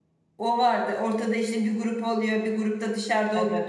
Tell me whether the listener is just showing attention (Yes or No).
Yes